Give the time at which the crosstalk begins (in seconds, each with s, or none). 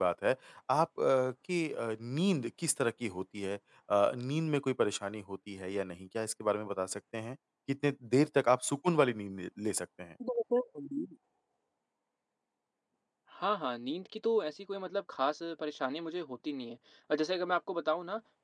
none